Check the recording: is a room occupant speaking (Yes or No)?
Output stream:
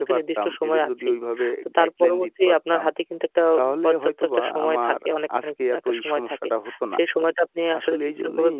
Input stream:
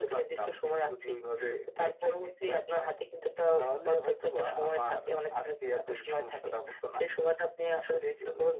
No